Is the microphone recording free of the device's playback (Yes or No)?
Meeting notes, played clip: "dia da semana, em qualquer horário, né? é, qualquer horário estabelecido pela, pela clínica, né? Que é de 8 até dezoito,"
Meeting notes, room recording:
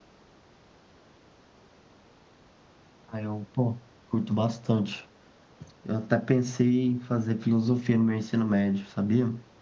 Yes